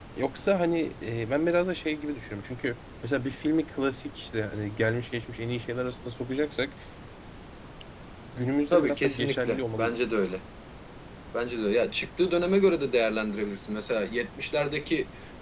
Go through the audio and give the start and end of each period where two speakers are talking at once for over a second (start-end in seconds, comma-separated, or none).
8.7-10.0